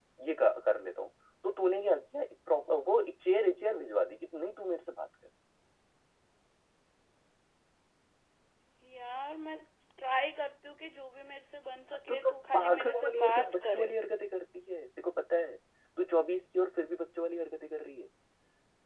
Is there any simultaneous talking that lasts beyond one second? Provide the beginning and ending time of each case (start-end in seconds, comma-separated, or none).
12.1-13.9